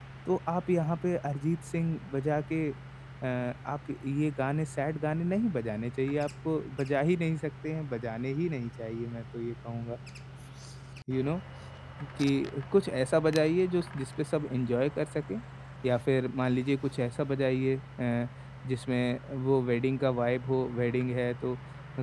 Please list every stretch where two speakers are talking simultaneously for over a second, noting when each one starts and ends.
none

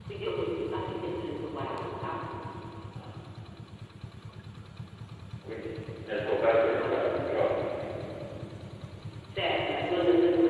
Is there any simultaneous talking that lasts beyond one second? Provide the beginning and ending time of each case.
6.0-7.2

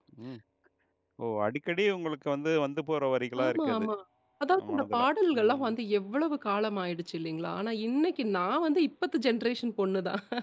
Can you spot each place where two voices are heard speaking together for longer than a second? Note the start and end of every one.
none

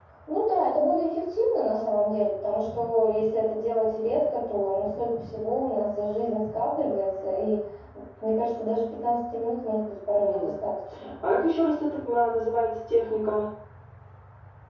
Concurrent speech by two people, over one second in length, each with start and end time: none

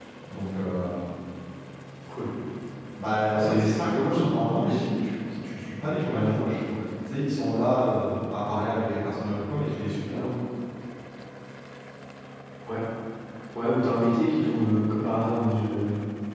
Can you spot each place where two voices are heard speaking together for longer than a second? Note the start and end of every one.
3.3-4.8

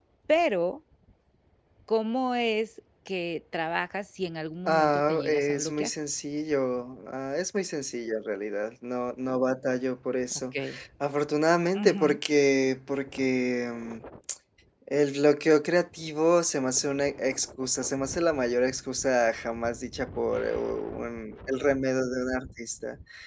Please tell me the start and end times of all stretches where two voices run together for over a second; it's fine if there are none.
4.7-5.9

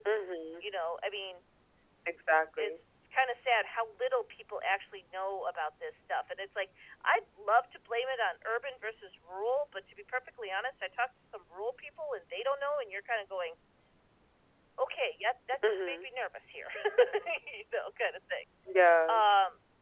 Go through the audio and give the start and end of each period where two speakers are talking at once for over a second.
none

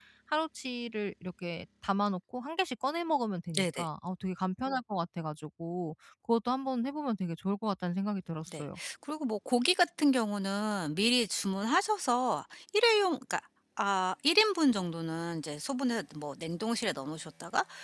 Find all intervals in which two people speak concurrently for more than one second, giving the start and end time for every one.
none

